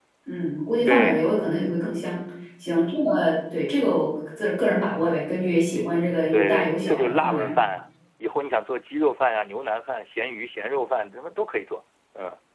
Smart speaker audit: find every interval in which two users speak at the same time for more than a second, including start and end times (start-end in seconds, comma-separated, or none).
6.3-7.5